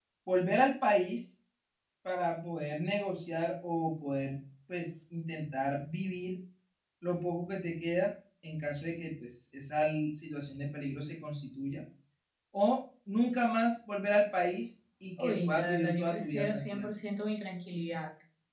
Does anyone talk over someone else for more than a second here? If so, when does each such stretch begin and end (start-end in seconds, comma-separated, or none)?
15.2-16.9